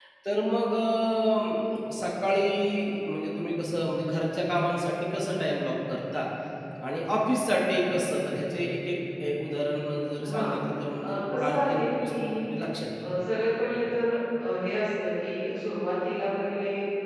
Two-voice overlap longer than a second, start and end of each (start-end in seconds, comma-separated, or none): 11.0-12.3